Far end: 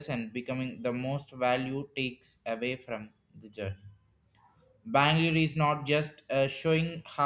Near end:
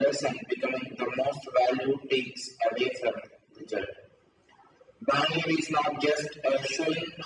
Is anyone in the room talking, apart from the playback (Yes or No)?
No